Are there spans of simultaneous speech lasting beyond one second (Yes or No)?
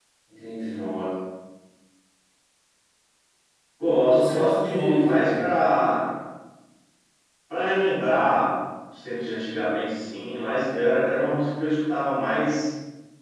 Yes